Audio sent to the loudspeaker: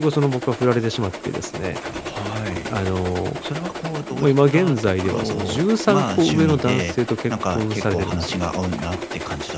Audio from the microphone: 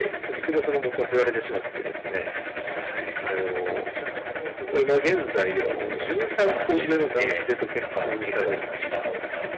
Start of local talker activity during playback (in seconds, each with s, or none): none